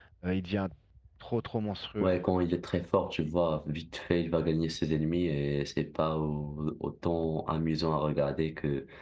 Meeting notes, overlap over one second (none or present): none